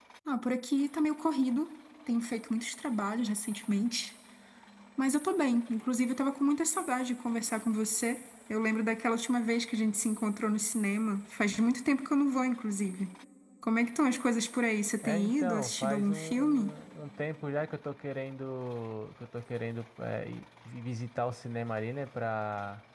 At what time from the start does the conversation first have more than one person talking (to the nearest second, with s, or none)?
15 s